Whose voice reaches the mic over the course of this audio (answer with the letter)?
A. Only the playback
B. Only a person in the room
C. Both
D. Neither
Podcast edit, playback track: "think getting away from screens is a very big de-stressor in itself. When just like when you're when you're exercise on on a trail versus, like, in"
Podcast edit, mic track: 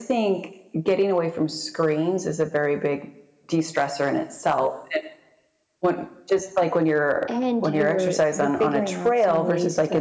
C